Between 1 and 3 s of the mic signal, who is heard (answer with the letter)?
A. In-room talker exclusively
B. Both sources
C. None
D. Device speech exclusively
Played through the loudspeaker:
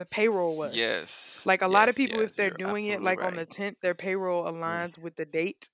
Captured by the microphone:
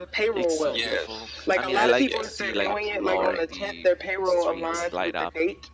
B